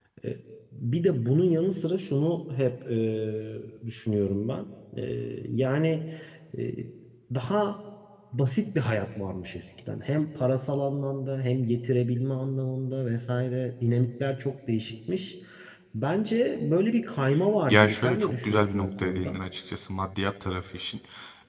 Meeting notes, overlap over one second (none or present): present